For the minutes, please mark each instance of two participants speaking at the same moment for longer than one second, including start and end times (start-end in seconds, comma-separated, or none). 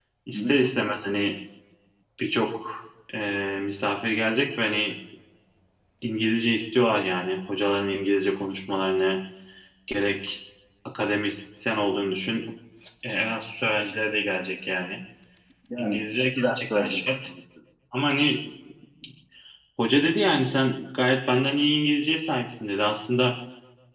15.8-17.0